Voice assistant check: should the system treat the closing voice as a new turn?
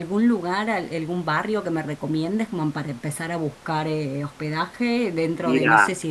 No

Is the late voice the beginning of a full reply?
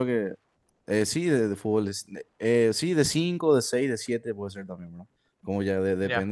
No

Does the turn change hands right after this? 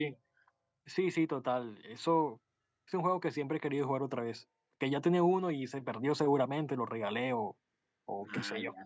Yes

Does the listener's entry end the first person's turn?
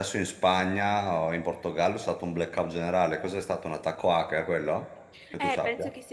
Yes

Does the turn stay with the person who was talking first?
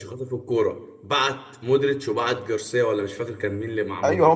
No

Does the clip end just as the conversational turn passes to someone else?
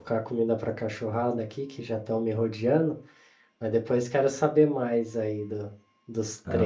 Yes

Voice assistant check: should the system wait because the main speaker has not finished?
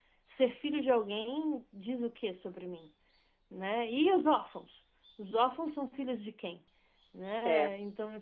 Yes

